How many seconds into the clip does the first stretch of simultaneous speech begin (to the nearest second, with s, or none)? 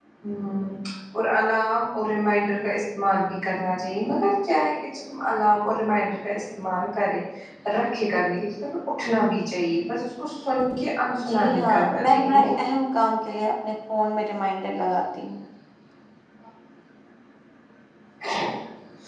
11 s